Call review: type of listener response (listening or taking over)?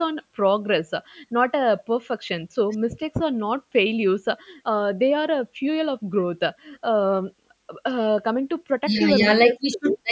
taking over